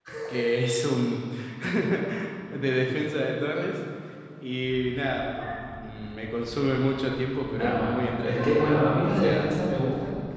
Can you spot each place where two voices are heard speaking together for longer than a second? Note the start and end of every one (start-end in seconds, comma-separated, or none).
7.5-9.6